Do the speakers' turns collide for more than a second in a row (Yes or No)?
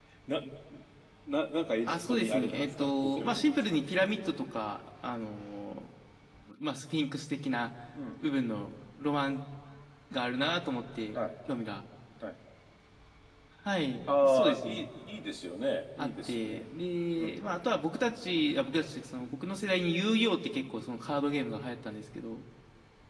Yes